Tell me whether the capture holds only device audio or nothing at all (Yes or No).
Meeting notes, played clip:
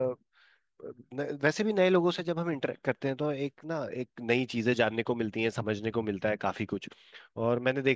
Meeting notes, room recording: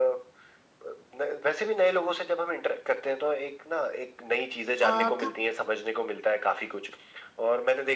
No